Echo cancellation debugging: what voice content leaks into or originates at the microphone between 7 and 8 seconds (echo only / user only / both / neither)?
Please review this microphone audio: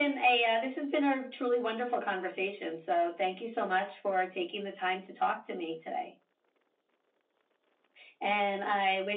neither